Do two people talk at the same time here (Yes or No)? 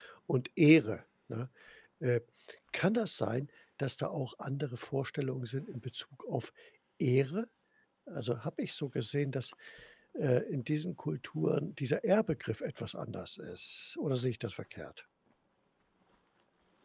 No